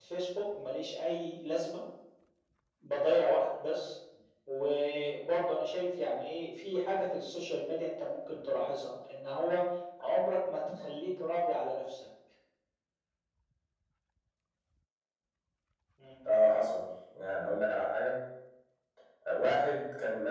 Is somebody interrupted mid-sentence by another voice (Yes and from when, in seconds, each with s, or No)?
No